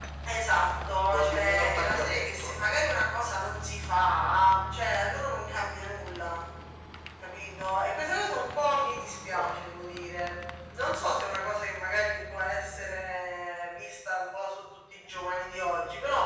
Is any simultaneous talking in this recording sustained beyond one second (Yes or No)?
Yes